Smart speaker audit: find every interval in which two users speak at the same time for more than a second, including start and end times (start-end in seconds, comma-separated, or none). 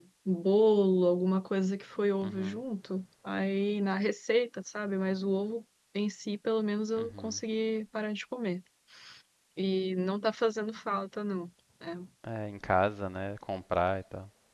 none